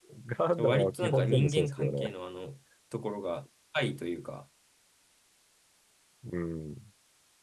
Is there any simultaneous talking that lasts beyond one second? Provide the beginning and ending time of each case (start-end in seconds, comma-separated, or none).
0.6-2.1